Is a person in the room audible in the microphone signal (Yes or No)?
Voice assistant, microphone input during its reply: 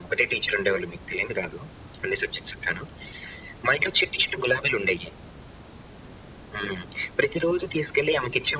No